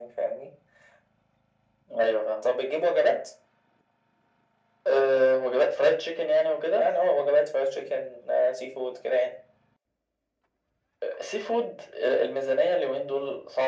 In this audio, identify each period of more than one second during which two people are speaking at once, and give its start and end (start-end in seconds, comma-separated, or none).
none